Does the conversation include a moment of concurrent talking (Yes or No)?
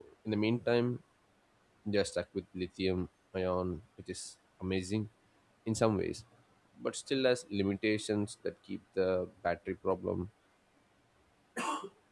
No